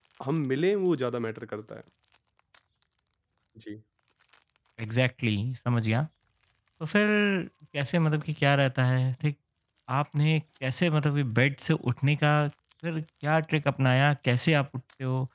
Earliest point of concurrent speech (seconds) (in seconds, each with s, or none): none